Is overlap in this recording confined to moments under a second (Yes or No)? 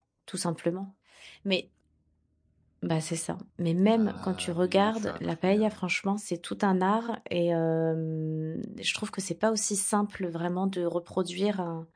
No